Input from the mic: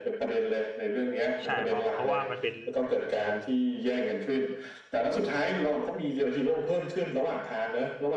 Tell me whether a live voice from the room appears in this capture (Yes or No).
Yes